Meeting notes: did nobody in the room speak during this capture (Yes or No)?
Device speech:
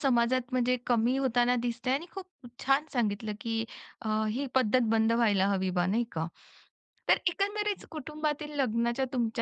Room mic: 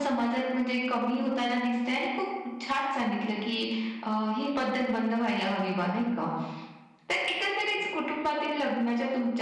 Yes